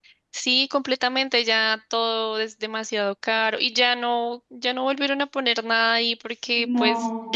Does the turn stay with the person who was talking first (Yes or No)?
Yes